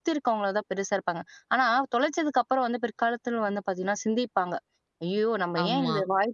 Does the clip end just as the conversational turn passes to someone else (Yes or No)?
No